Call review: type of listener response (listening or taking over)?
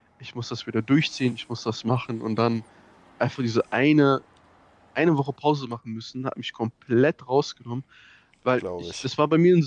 listening